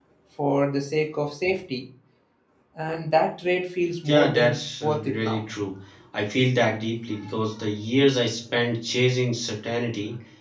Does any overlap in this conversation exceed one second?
Yes, from 4.0 s

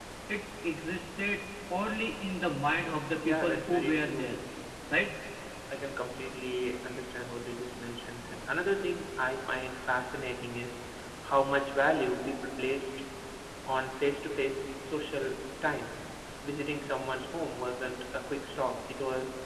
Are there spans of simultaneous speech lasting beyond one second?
Yes, from 3.2 s

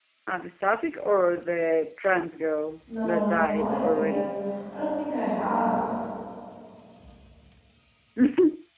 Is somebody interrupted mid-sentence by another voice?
Yes, from 2.9 s

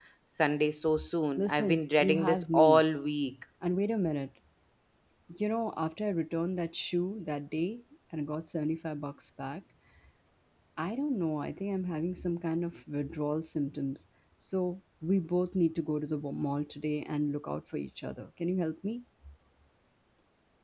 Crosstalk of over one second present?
Yes, from 1.4 s

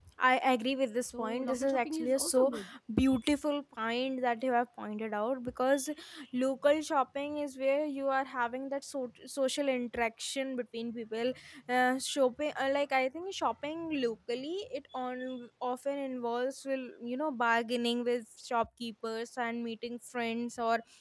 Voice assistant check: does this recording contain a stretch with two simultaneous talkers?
Yes, from 1.1 s

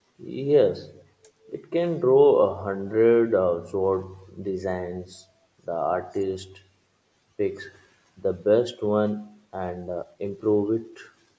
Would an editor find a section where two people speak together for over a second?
No

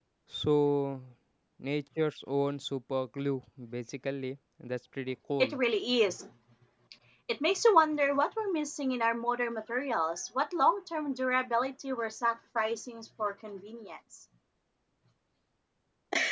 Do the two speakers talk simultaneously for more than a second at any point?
No

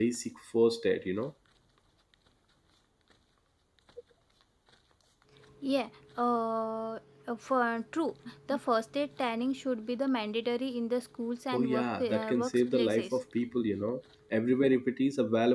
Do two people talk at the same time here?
Yes, from 11.5 s

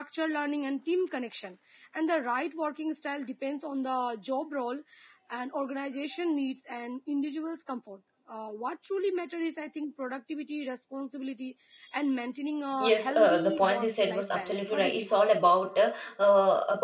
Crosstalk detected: Yes, from 12.8 s

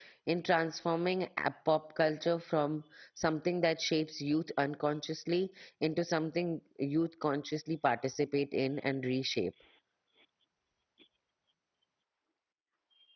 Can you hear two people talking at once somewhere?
No

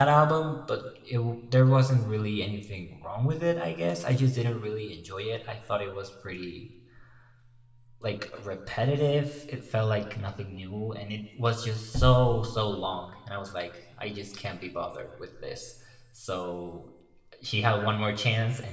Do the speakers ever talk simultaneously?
No

